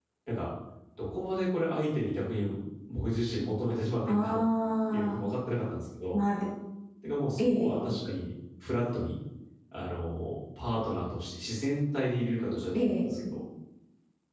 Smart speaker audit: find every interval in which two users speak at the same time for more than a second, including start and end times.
none

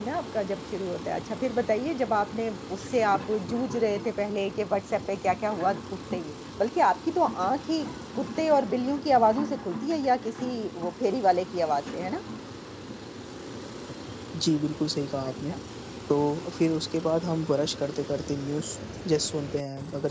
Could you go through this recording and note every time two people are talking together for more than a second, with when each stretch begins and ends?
none

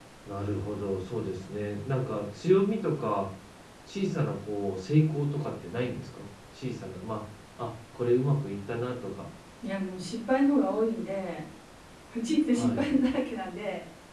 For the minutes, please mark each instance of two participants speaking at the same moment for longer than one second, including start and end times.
none

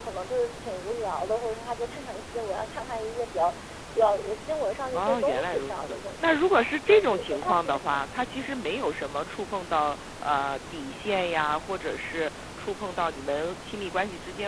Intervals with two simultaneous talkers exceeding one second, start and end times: 4.9-7.8

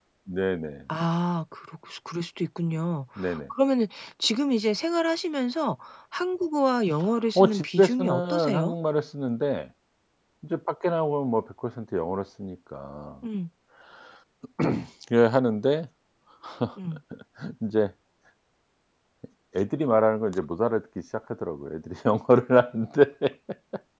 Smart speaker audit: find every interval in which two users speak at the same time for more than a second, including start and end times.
7.3-8.7

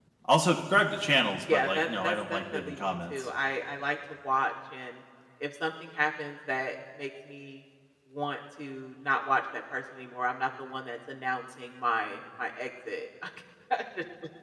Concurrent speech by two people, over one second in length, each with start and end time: 1.4-3.3

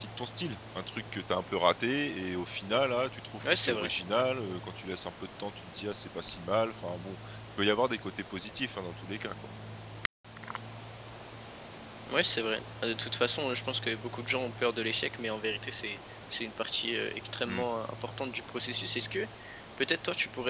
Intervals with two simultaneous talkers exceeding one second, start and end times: none

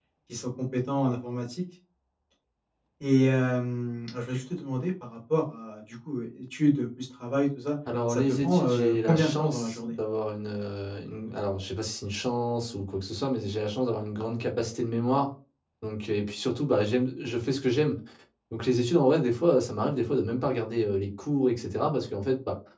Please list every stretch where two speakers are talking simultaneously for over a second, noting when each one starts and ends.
8.1-9.9

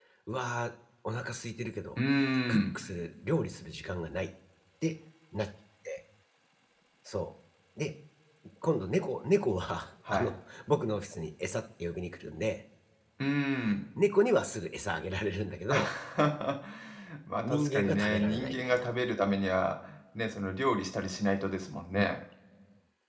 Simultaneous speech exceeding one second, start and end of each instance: 17.4-18.9

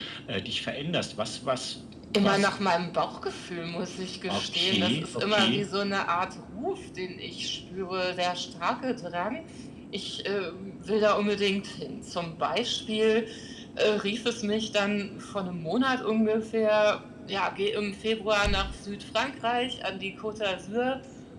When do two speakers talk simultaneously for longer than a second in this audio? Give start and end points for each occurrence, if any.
4.3-5.6

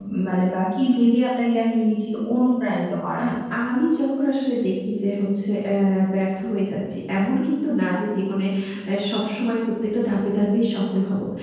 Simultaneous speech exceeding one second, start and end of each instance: none

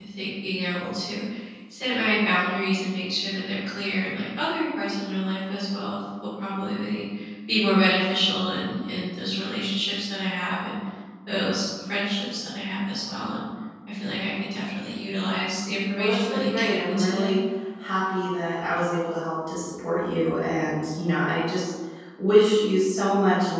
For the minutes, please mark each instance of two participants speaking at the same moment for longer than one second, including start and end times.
16.0-17.4

